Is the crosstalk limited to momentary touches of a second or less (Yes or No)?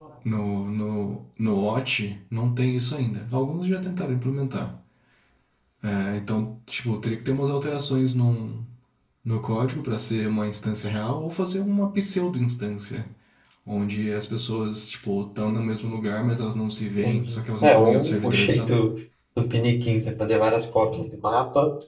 No